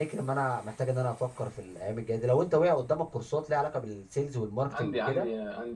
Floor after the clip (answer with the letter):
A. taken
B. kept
A